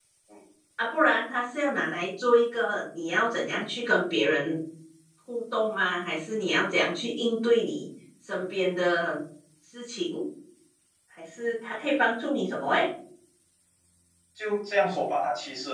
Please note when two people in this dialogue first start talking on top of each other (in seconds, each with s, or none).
none